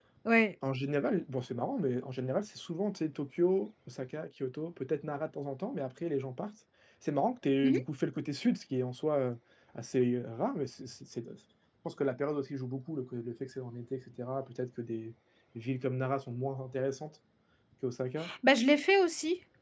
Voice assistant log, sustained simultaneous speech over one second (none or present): none